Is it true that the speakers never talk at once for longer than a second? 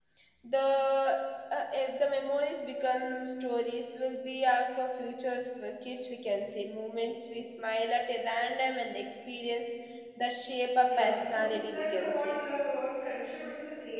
No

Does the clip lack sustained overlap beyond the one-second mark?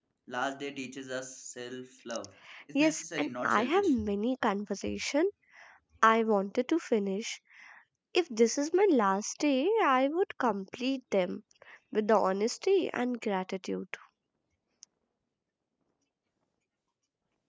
No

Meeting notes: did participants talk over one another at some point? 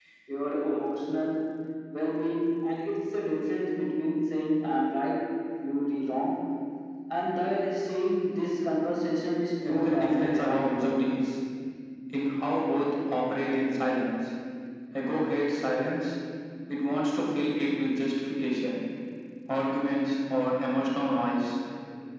Yes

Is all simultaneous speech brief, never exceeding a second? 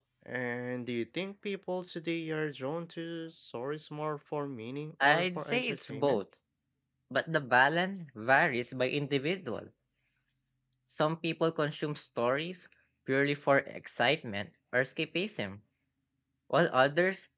No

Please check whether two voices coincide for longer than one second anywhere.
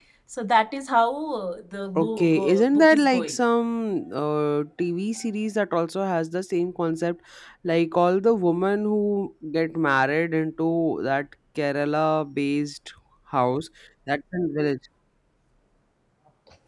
Yes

